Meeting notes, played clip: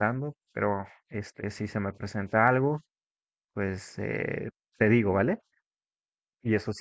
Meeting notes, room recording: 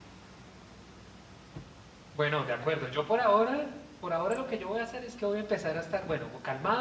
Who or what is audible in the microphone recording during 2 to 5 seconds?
user only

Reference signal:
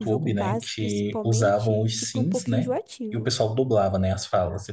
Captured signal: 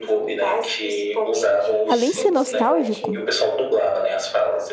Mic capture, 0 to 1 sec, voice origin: echo only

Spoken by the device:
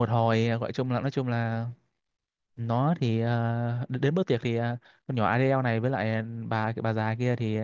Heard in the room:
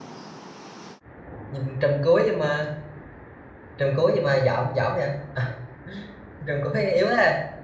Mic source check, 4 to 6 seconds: user only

